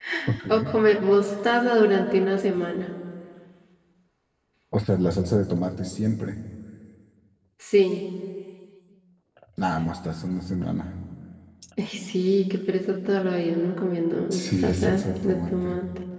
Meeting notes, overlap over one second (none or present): present